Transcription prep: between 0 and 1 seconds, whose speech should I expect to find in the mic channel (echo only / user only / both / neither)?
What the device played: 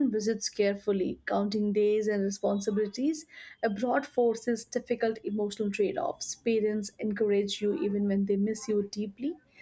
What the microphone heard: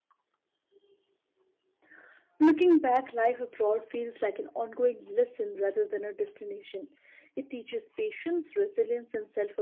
neither